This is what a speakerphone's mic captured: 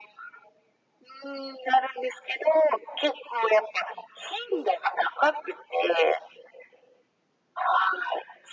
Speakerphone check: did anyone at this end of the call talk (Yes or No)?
No